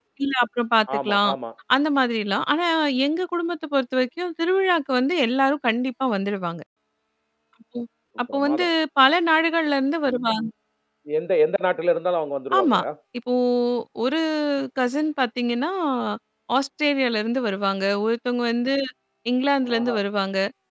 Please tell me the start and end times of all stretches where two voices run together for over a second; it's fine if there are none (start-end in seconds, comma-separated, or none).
none